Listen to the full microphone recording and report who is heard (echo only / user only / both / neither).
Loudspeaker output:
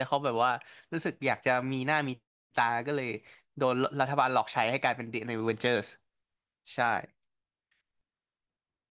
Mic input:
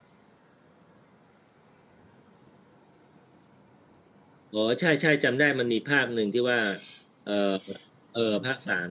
user only